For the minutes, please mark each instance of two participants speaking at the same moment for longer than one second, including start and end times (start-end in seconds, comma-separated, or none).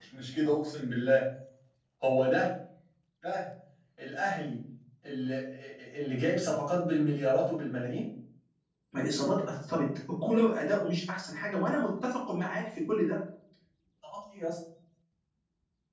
none